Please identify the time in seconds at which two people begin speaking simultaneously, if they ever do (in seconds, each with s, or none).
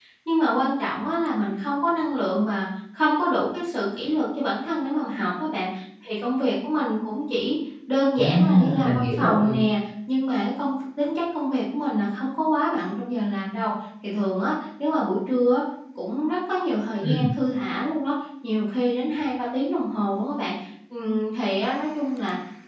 8.2 s